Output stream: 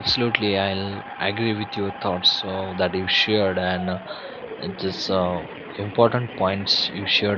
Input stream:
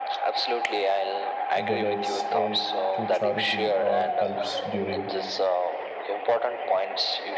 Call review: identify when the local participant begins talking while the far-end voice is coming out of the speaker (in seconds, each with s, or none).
1.6 s